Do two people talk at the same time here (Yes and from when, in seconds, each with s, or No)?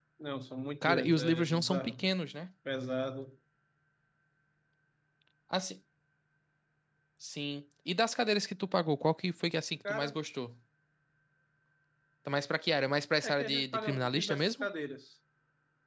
Yes, from 0.8 s